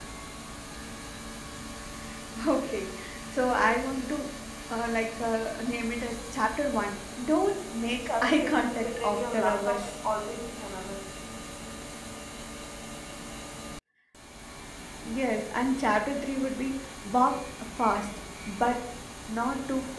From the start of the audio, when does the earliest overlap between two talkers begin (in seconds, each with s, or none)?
8.1 s